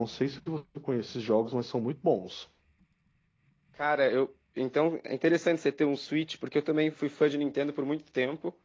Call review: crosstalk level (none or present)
none